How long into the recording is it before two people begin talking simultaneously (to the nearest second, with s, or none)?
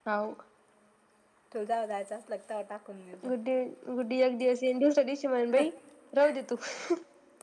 none